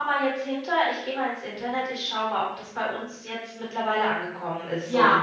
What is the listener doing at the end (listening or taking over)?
taking over